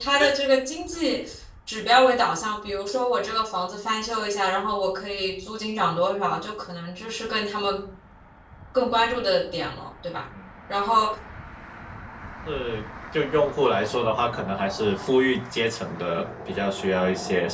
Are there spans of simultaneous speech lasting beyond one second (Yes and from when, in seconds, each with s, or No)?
No